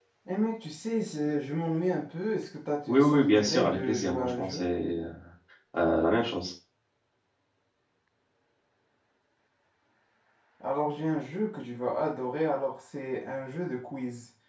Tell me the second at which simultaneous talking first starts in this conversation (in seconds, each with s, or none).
2.9 s